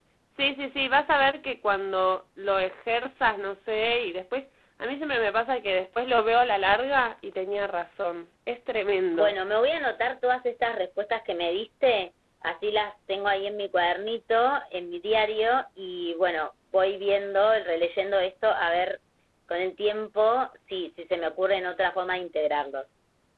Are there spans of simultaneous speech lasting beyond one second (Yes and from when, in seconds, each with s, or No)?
No